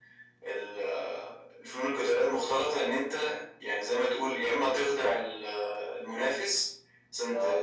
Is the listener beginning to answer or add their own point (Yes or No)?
No